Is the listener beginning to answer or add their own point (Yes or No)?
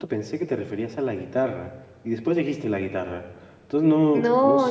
Yes